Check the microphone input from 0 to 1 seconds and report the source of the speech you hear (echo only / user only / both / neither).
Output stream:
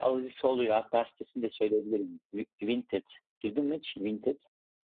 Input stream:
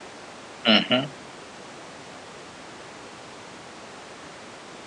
user only